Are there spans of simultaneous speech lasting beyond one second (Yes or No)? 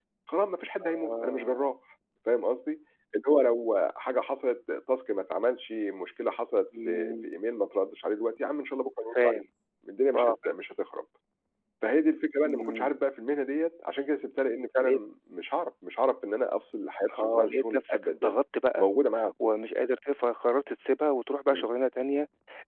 Yes